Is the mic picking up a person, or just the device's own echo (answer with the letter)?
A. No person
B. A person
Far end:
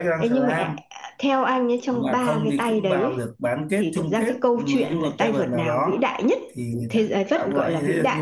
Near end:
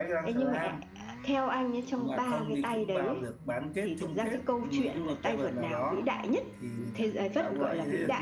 A